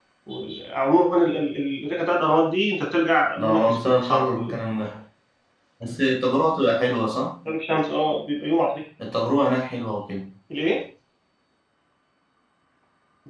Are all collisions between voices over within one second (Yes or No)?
No